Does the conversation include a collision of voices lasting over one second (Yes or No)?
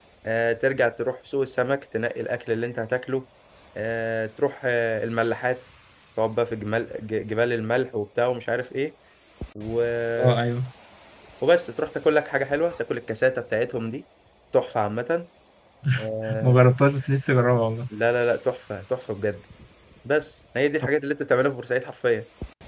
No